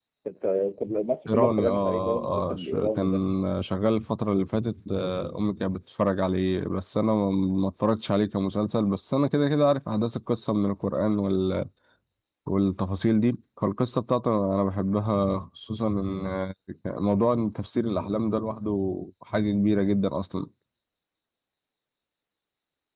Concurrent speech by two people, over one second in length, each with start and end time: 1.3-3.0

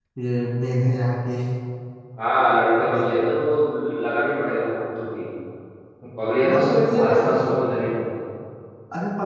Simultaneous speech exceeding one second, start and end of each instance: 6.4-7.6

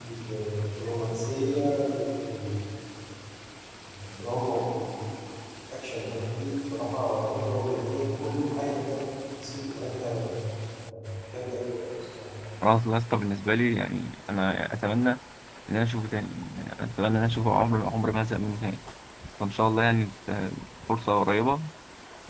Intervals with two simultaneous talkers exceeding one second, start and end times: none

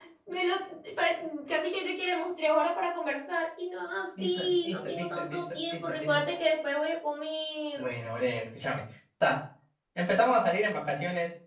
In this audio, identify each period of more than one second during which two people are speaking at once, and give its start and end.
4.2-6.2

